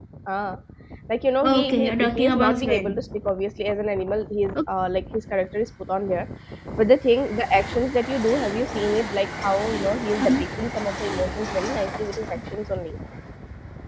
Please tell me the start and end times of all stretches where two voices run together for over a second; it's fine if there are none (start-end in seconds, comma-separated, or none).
1.4-3.0